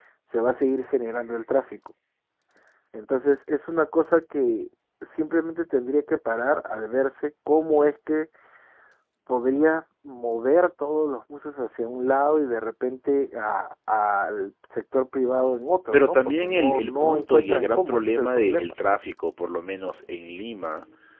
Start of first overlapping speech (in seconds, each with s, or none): 15.9 s